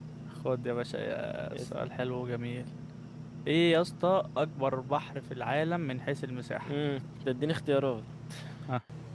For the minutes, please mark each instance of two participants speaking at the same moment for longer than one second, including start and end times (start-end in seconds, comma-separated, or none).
none